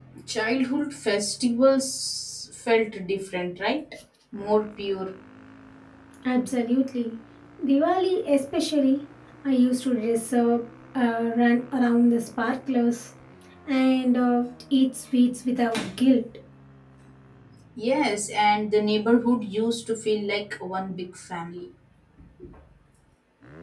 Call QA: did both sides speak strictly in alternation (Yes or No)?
Yes